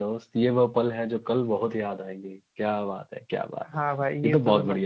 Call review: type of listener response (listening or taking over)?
taking over